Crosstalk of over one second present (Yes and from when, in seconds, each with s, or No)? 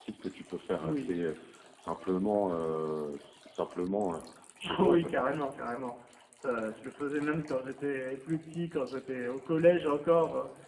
No